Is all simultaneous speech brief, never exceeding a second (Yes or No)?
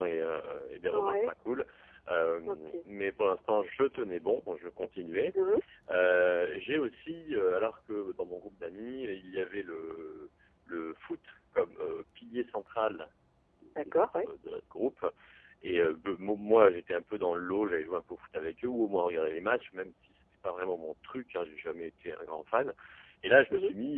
Yes